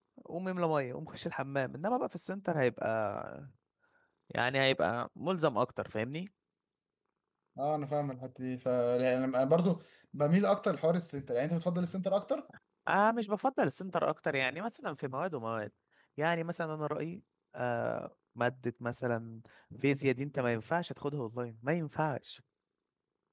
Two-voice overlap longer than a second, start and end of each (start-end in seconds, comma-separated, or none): none